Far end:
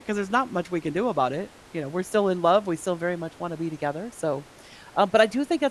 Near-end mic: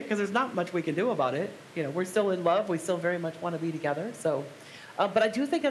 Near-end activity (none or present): none